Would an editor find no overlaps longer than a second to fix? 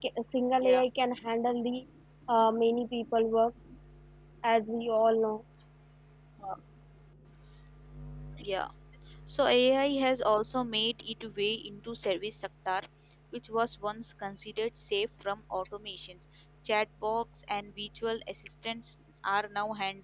Yes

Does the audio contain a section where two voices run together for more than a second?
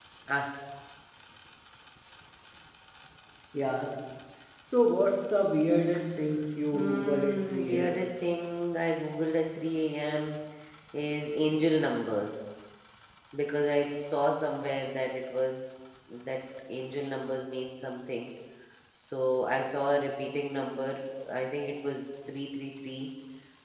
Yes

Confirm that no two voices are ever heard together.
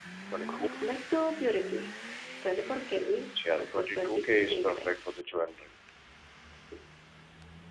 No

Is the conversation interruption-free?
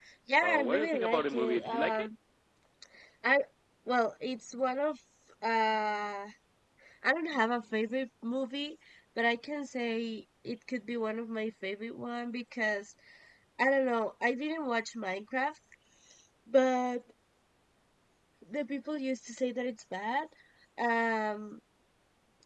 No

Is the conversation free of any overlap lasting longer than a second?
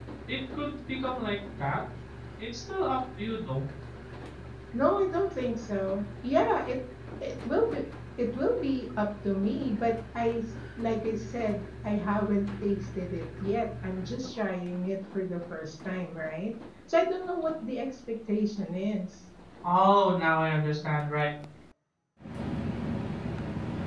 Yes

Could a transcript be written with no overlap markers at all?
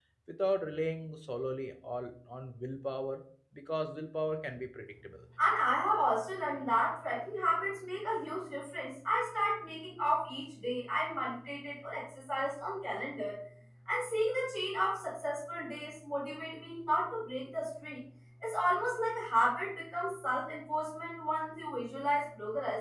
Yes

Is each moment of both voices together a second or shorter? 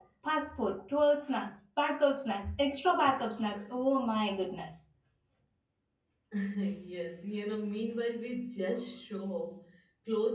Yes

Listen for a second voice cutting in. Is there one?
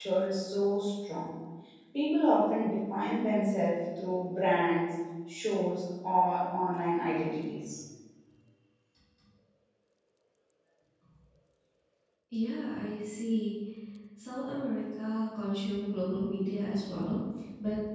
No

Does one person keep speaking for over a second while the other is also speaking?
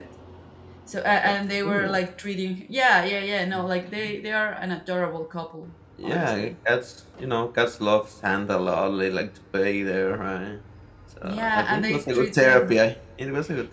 Yes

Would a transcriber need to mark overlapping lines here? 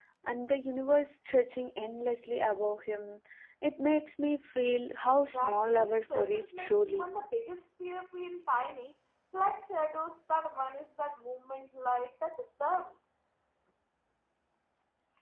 Yes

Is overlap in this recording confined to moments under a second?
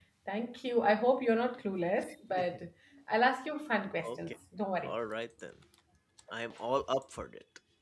Yes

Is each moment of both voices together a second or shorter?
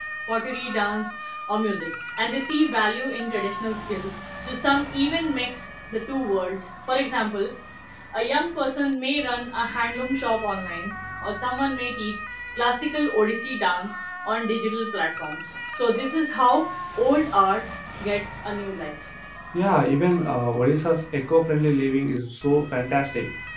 Yes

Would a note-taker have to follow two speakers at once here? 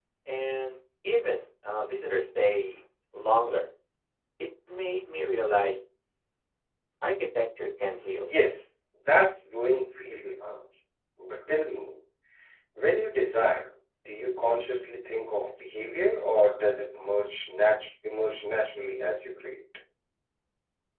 No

